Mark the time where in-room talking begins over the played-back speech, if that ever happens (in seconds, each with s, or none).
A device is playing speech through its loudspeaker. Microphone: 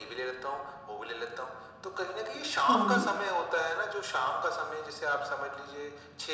2.7 s